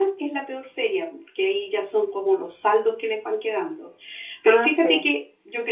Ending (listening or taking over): listening